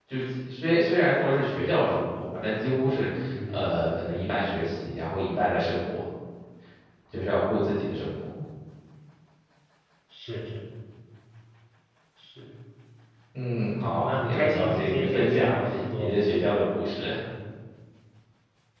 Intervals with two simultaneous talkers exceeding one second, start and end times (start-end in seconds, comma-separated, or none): 13.6-16.1